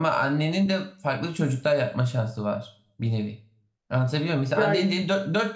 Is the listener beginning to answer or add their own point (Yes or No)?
No